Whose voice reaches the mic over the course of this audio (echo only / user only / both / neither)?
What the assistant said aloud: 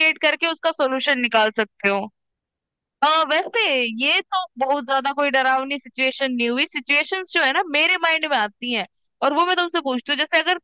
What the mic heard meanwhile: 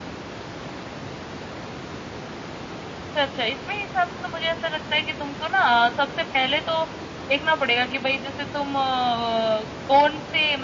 user only